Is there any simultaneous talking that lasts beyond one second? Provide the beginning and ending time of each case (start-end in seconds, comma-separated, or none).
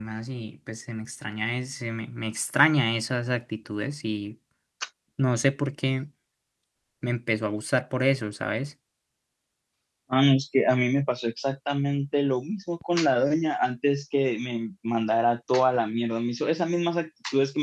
none